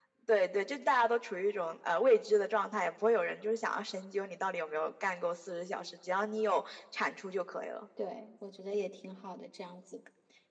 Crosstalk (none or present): none